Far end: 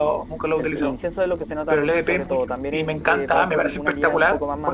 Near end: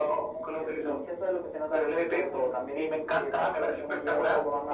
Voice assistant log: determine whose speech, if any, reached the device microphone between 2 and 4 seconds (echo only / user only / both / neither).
echo only